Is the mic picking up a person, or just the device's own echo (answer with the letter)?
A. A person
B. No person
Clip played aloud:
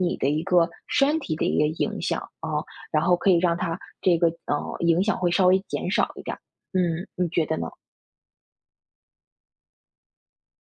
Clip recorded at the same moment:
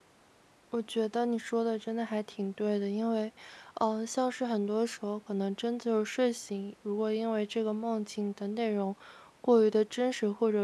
A